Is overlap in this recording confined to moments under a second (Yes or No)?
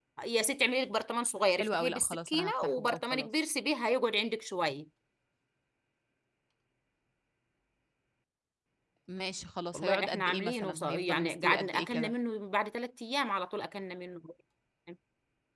No